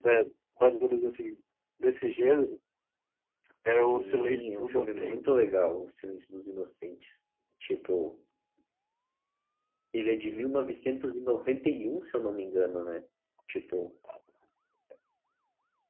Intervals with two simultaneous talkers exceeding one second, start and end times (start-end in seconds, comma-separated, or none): 3.7-5.4